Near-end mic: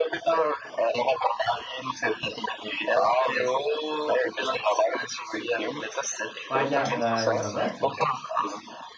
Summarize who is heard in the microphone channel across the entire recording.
both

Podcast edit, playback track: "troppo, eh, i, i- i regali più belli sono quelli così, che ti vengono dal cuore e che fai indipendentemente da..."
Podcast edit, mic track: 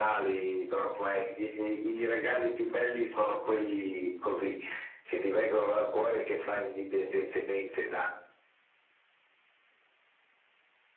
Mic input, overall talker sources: echo only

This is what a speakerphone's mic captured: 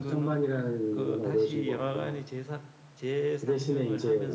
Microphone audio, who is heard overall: echo only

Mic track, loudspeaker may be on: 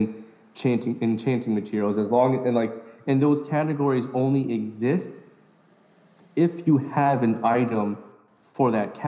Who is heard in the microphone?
echo only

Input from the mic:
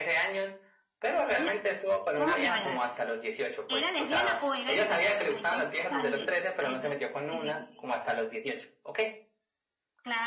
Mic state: both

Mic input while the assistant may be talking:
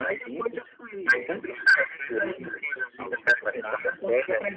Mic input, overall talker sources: echo only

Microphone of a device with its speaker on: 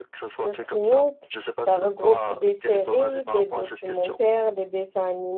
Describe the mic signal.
both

